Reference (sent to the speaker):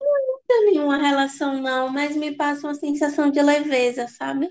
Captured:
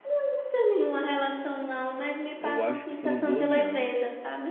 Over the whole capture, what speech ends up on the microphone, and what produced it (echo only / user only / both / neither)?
both